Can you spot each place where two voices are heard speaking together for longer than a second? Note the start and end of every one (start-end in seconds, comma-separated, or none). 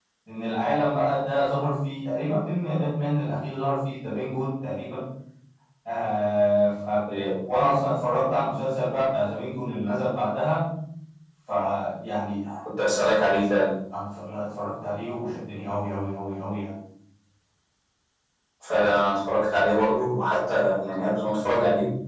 none